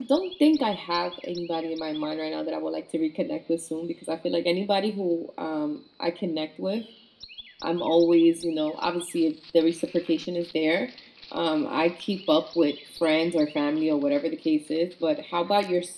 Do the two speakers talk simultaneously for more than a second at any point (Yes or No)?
No